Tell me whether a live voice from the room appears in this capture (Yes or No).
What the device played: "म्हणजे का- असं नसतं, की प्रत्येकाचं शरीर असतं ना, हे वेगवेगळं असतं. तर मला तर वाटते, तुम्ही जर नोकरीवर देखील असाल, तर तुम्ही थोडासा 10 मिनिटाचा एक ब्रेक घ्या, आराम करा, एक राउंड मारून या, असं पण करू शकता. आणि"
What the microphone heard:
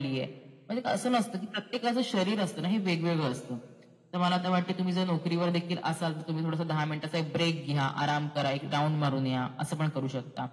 No